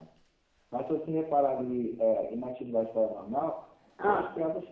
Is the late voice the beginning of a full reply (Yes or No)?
No